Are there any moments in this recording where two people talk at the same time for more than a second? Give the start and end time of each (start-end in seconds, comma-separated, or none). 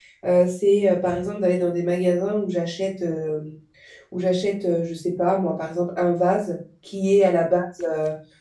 none